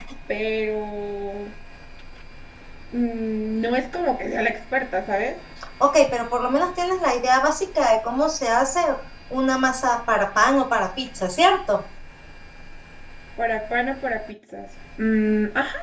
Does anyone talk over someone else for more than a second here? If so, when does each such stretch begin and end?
none

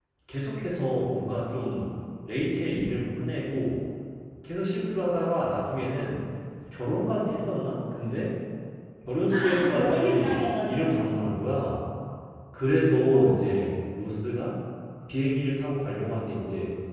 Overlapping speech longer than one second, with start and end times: 9.3-10.7

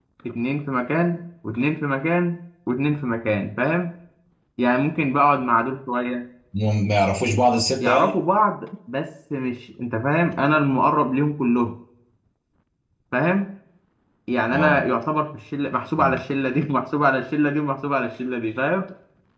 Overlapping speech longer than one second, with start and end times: none

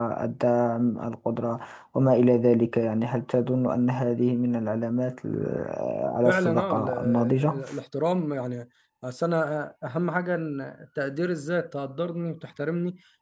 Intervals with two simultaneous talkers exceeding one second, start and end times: 6.2-7.5

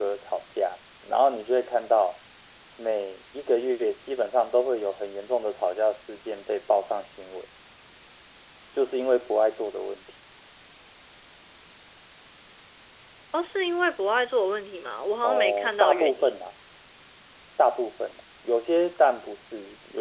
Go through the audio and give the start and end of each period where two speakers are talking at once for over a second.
15.2-16.4

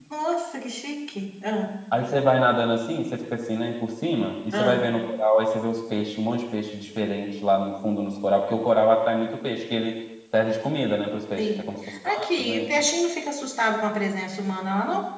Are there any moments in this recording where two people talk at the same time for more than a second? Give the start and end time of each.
11.4-12.7

